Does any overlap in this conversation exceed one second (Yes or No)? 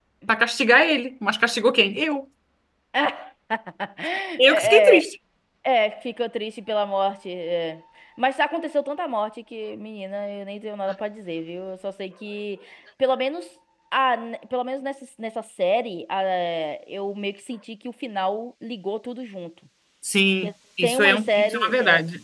Yes